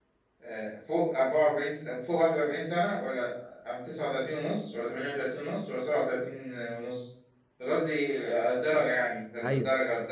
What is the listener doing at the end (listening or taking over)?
taking over